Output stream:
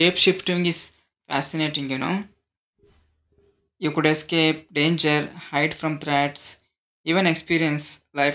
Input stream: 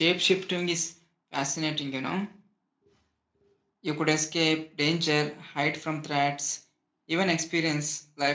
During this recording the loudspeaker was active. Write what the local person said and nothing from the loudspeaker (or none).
none